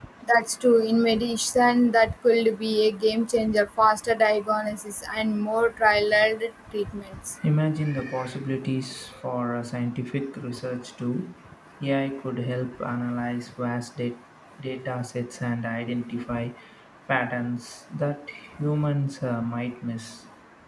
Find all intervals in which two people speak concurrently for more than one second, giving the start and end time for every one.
none

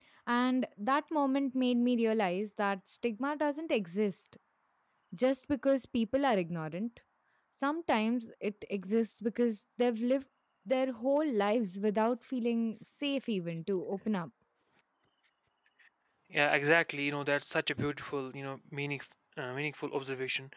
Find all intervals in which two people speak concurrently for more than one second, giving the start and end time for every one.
none

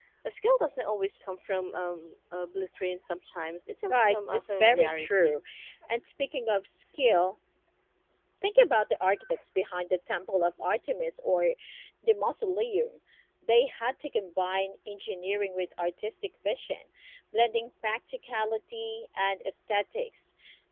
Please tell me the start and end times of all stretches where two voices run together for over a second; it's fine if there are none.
3.9-5.3

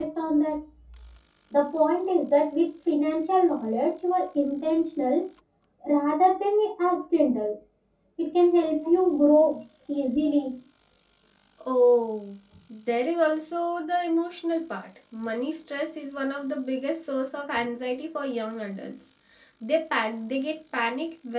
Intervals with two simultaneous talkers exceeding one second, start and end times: none

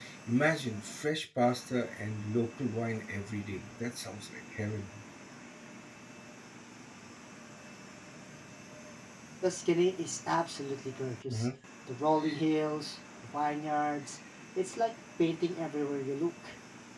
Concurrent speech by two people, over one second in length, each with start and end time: none

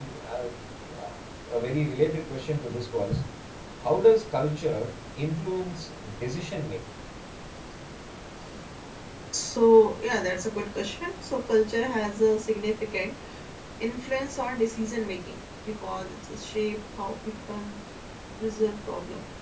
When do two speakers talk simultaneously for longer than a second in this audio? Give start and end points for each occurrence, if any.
none

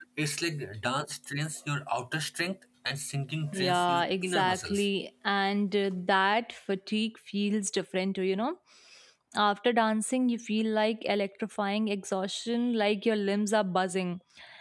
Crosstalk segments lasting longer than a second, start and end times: 3.5-4.9

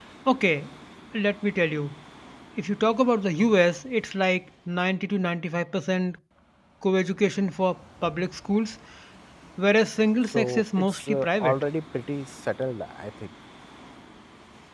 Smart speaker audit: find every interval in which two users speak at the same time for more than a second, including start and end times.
10.3-11.6

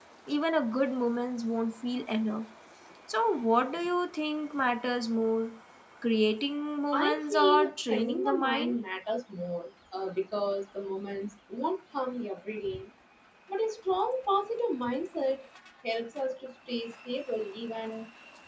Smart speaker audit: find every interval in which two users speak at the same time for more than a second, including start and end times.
6.9-8.8

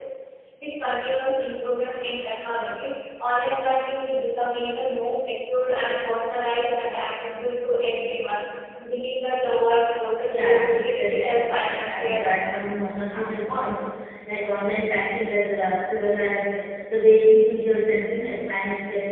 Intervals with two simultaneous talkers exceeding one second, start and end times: 10.3-12.7

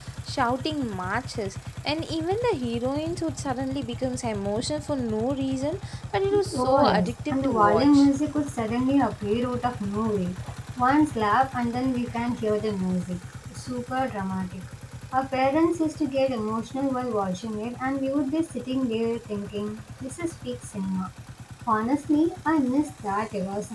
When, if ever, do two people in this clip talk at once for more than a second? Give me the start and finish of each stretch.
6.5-8.1

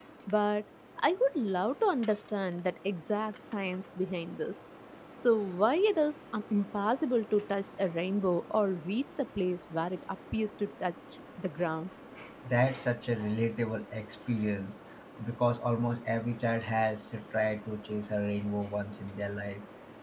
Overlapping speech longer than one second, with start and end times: none

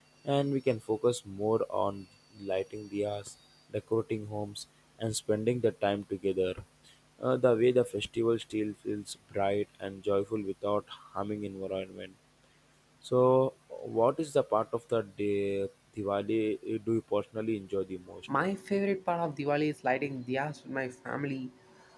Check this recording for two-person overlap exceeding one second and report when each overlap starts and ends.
none

